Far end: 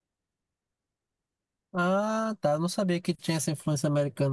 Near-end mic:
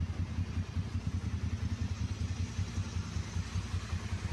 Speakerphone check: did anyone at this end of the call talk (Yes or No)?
No